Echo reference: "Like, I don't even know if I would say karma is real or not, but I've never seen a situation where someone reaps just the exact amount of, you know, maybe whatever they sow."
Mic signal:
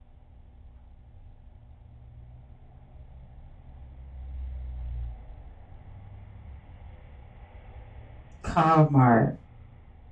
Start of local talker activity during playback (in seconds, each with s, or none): 8.4 s